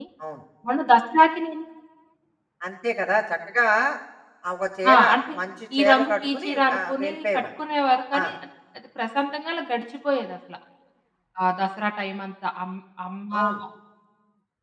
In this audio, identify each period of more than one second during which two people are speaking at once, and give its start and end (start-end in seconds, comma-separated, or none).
5.8-7.4